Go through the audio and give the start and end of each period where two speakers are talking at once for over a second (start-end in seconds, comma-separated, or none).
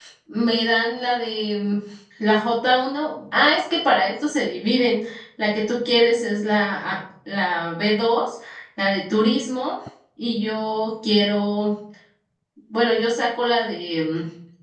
none